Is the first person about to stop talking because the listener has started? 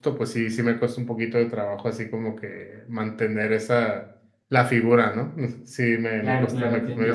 Yes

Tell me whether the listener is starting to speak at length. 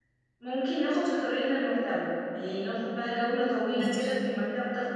No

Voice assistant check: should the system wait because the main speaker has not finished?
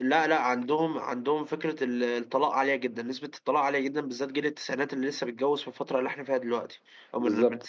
Yes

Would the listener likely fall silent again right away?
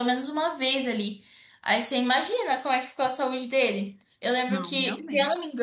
Yes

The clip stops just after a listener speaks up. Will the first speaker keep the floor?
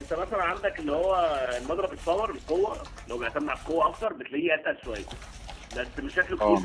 Yes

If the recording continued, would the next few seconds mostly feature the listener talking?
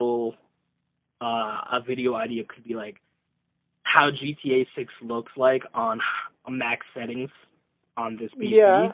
No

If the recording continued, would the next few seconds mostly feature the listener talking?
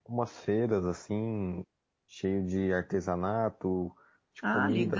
No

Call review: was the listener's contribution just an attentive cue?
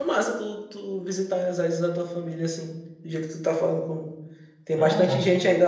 Yes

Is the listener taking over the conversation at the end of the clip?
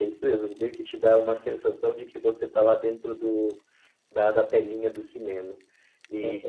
Yes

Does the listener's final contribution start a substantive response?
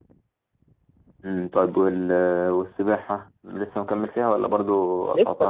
Yes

